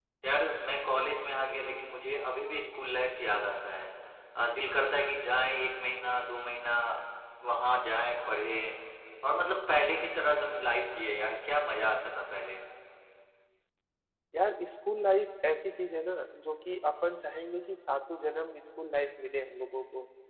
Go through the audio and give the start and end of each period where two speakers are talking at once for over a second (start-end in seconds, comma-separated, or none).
none